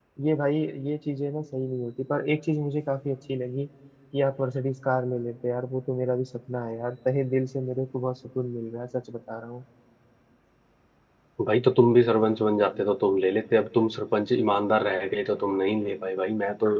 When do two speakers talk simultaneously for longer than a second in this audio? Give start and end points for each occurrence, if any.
none

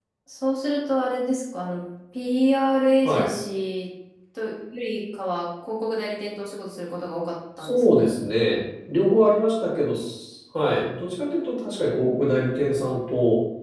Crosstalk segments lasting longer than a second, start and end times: none

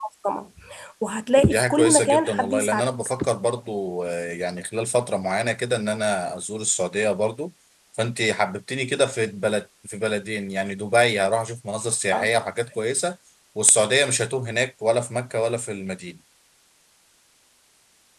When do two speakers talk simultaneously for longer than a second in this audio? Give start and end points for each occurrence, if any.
1.5-2.9

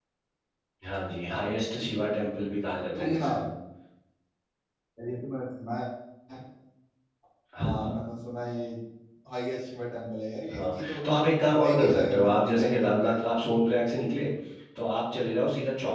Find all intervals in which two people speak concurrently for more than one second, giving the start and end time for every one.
11.6-13.4

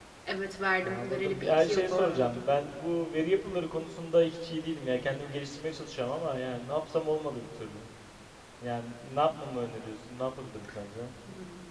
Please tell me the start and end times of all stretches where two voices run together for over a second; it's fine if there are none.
0.8-2.4

